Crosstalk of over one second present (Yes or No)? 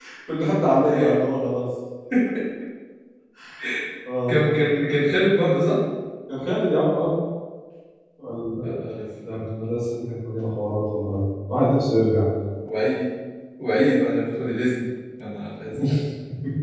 No